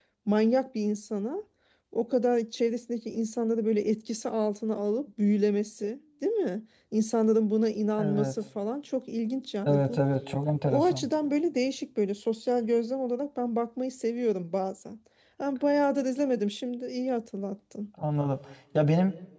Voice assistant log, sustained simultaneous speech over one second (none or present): none